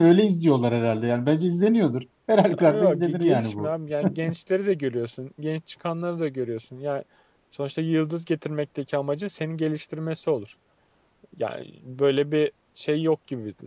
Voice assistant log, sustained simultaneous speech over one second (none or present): present